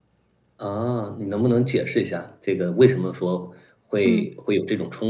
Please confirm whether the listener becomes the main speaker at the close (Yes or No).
No